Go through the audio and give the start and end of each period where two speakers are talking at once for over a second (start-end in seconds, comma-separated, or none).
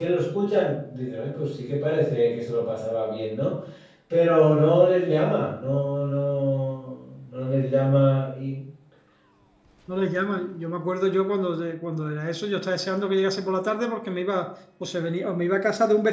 none